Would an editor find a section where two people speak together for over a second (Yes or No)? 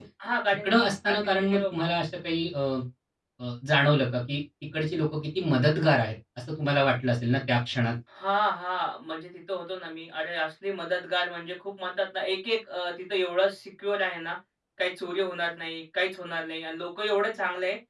Yes